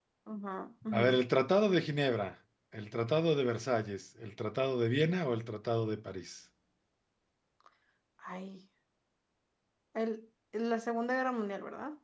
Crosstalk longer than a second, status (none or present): none